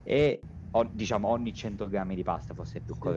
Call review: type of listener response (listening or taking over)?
listening